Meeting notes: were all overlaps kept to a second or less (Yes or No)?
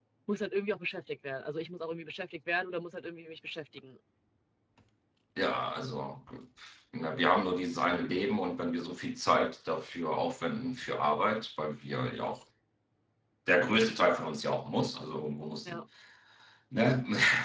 Yes